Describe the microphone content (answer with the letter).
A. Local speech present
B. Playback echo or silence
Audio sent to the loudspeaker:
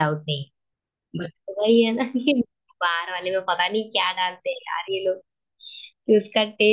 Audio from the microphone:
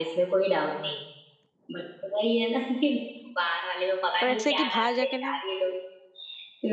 A